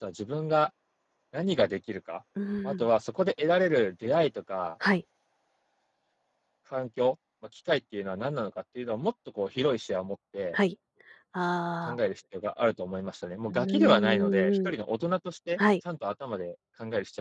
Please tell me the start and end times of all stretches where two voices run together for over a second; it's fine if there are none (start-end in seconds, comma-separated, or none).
13.5-14.7